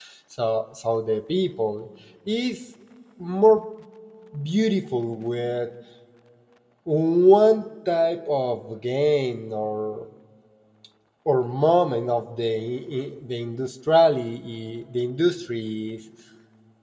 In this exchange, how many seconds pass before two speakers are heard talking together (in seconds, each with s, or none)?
none